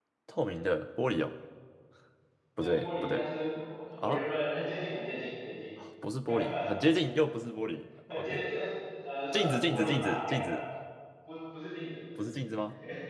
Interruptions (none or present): present